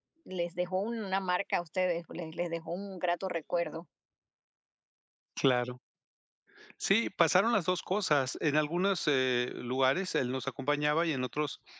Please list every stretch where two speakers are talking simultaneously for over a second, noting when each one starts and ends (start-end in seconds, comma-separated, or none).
none